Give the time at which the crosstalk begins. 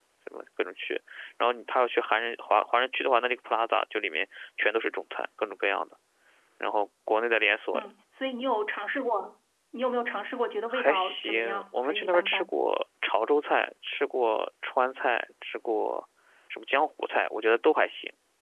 10.7 s

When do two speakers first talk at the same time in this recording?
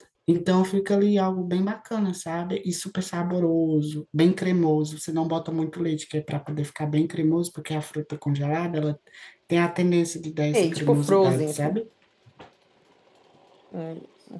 10.5 s

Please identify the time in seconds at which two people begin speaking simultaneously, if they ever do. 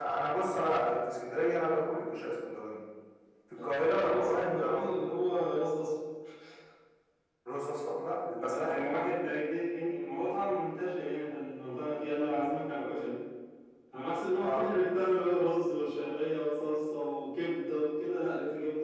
3.6 s

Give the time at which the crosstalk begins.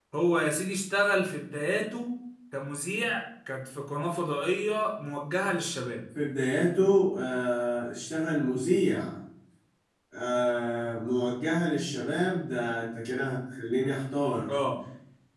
none

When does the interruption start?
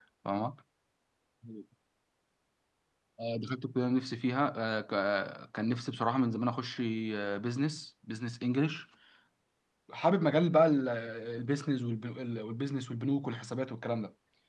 none

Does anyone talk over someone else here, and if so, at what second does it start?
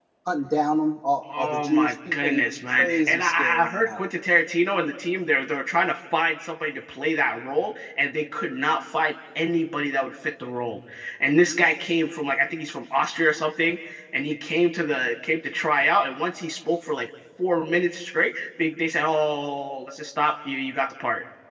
1.3 s

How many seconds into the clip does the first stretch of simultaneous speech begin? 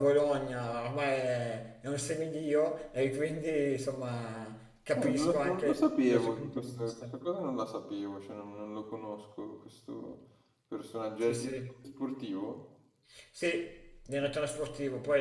5.0 s

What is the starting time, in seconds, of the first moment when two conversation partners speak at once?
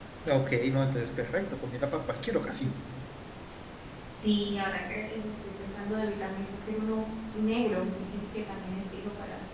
none

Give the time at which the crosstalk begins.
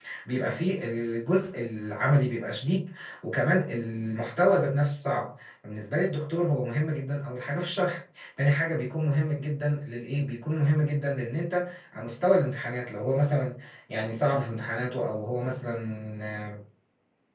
none

